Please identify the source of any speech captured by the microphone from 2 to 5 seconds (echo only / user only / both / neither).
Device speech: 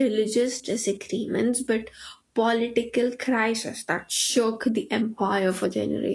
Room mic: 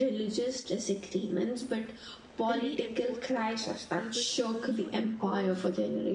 both